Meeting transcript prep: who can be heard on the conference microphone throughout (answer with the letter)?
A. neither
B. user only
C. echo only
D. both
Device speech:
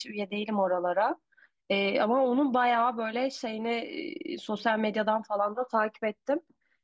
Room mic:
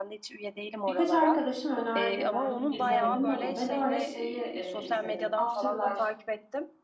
D